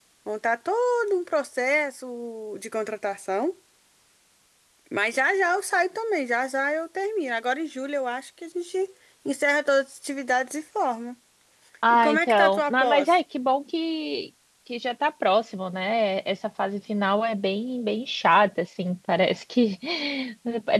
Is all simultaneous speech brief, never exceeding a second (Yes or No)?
No